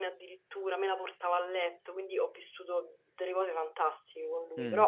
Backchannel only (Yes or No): Yes